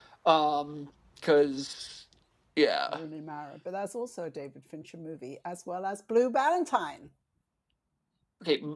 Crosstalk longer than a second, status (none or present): none